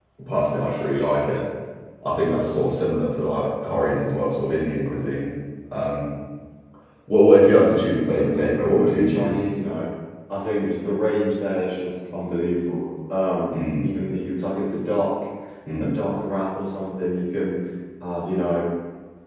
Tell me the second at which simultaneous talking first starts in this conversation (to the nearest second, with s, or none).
8 s